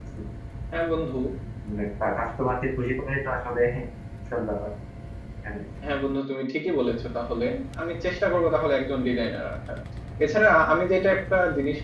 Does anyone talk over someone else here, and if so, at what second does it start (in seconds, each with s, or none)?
none